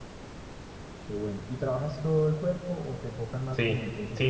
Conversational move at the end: taking over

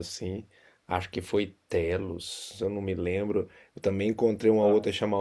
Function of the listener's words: listening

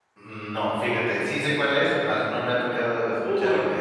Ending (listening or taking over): taking over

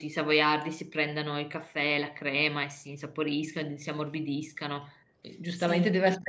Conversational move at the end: listening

